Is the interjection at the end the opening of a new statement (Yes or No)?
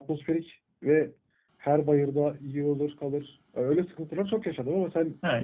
Yes